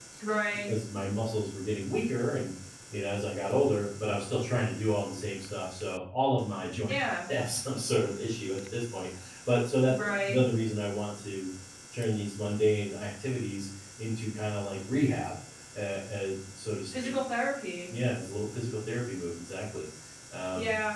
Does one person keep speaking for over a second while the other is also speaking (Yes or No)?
No